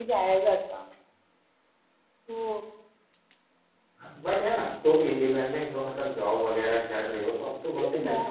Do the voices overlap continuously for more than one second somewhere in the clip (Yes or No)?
No